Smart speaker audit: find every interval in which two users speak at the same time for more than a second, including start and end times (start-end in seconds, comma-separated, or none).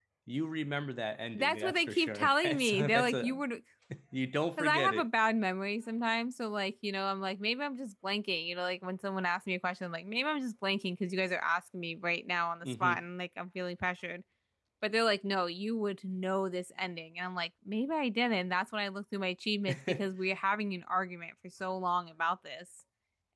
1.3-3.4